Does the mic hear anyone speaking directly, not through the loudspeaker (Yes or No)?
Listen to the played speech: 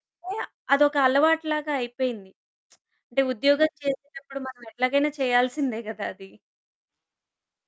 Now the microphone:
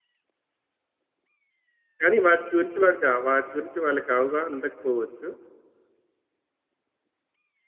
Yes